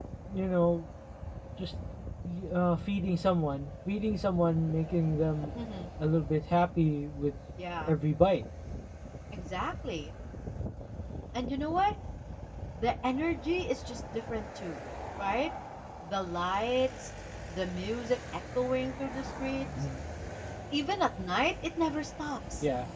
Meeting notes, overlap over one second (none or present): none